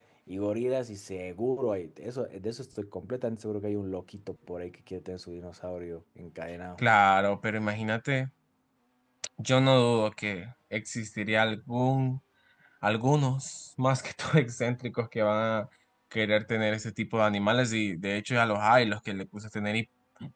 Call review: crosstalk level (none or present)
none